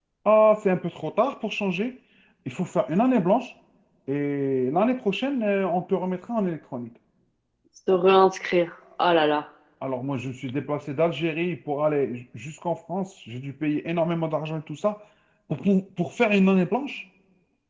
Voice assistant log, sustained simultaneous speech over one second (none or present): none